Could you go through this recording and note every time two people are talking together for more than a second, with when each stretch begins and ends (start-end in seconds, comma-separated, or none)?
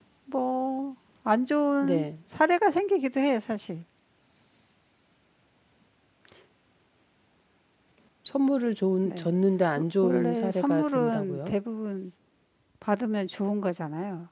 10.0-11.5